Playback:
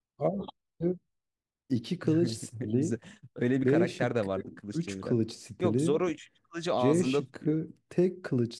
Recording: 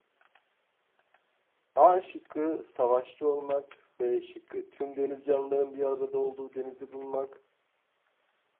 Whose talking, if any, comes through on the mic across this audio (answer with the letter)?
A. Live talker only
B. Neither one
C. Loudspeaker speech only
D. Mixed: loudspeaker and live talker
A